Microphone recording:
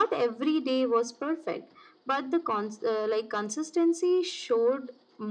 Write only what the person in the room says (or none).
none